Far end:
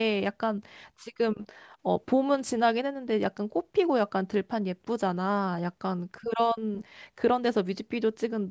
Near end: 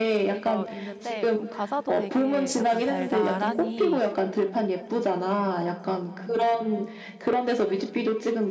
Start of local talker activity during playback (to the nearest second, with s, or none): 0 s